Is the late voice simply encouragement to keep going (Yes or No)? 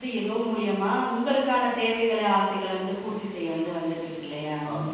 No